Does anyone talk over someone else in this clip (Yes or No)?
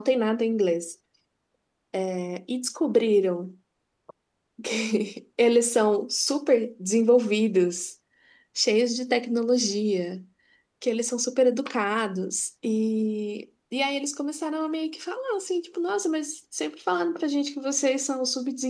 No